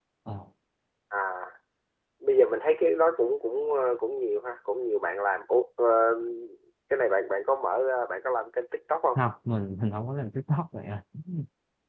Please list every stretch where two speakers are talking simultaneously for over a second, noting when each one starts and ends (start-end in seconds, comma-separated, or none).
none